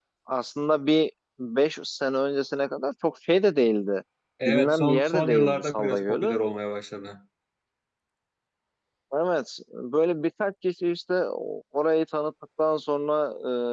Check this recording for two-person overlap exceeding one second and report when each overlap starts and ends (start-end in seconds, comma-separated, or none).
4.5-6.4